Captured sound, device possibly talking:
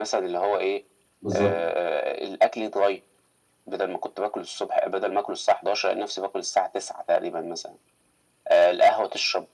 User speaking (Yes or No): Yes